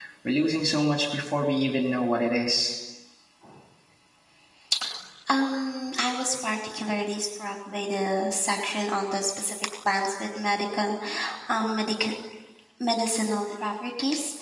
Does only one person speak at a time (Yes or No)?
Yes